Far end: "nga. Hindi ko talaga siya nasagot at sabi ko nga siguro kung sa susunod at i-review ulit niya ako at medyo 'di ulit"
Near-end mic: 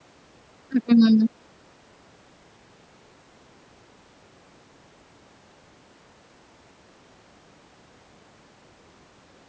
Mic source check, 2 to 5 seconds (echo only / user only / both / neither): neither